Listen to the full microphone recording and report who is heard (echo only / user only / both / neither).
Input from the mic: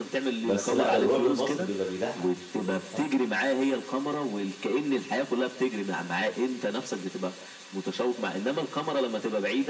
both